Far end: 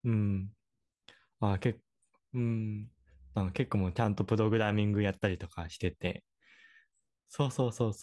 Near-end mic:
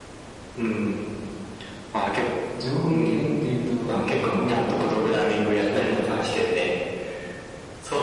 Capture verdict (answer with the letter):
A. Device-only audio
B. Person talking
B